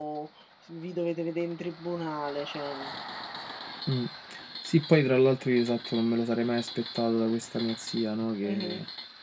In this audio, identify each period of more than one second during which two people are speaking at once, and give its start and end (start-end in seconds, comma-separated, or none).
none